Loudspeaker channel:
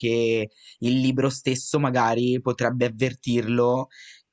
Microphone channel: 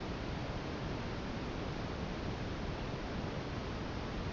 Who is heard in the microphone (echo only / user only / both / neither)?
neither